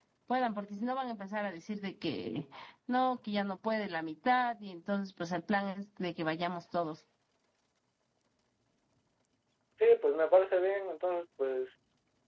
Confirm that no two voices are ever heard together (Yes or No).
Yes